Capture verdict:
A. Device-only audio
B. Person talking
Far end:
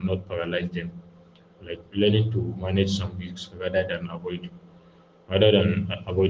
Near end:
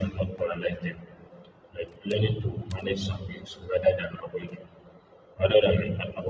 A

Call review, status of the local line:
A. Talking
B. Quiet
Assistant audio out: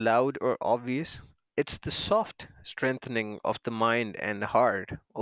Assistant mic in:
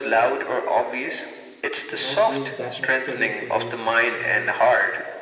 A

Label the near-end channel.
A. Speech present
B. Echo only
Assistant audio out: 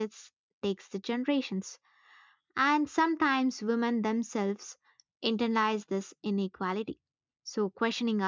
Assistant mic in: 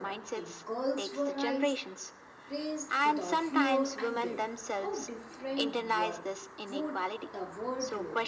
A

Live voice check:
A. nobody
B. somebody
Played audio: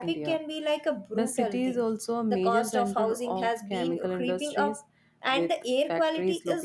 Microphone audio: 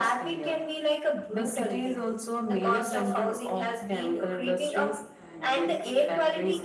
B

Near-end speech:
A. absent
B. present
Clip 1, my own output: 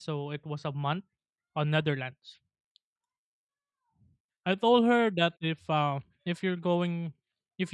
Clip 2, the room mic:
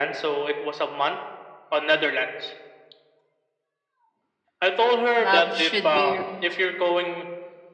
B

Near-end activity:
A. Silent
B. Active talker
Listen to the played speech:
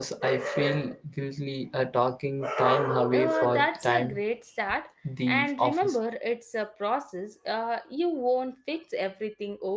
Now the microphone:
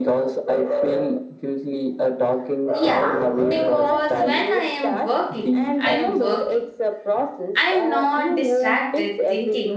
B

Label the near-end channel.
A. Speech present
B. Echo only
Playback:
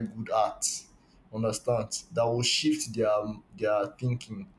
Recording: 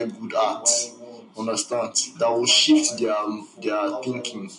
A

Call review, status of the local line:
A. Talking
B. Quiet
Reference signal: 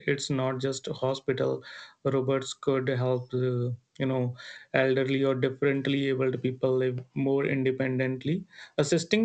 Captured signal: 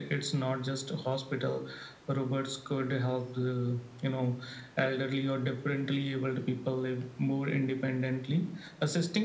B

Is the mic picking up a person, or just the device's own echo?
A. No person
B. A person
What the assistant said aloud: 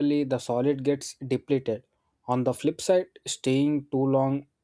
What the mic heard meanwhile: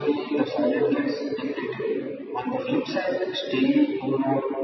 A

